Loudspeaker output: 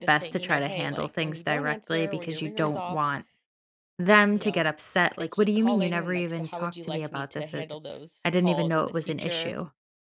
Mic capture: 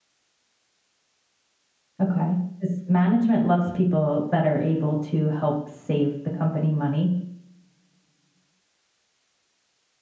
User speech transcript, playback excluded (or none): Okay. Because management loves people that are able to help save the company money.